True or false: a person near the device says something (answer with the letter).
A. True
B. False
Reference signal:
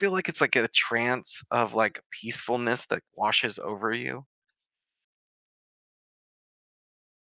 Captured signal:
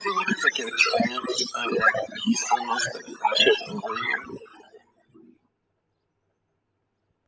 B